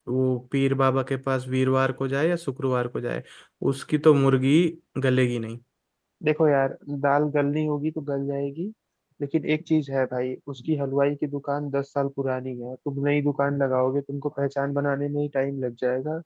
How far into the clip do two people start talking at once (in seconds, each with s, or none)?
none